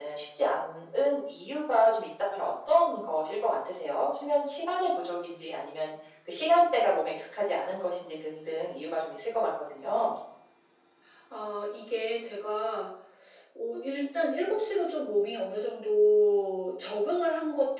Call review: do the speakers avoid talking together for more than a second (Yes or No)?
Yes